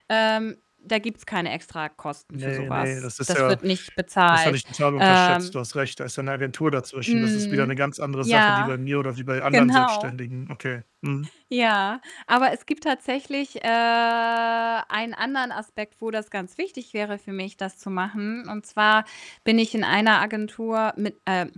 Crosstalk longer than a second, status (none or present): present